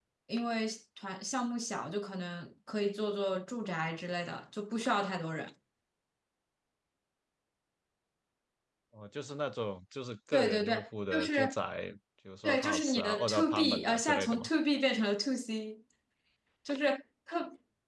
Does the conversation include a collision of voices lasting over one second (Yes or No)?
Yes